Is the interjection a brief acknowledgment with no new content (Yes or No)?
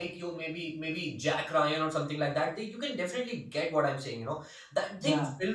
Yes